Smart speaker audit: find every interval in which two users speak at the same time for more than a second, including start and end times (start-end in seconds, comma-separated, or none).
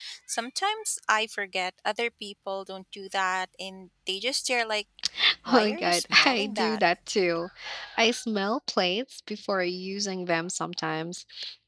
5.5-6.8